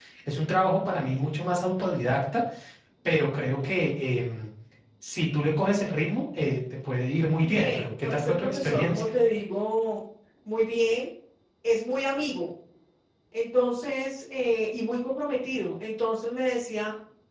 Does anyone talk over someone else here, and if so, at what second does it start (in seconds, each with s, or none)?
7.5 s